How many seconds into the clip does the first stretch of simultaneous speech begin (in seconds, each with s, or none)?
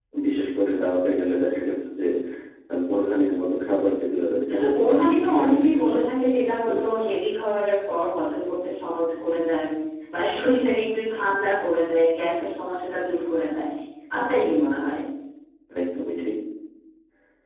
4.5 s